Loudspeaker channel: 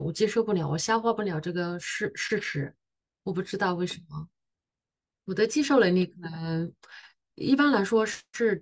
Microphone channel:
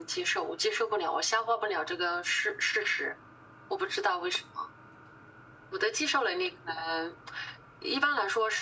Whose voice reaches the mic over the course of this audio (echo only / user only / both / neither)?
echo only